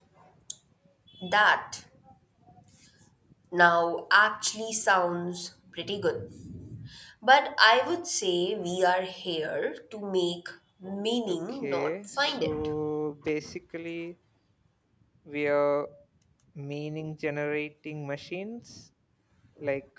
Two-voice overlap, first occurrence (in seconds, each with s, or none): 11.3 s